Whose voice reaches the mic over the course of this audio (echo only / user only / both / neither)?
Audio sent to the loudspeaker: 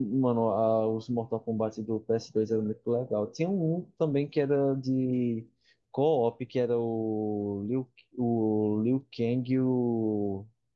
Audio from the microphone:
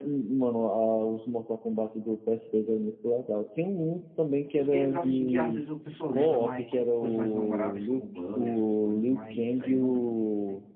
both